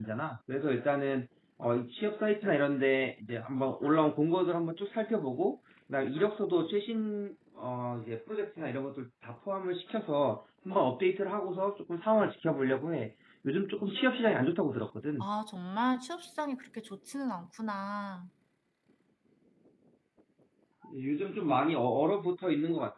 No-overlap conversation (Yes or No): Yes